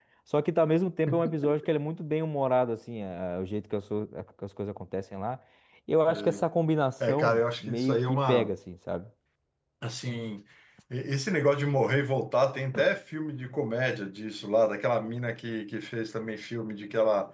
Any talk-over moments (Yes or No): Yes